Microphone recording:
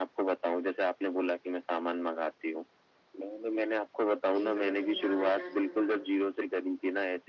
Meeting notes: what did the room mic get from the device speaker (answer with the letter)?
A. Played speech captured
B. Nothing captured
A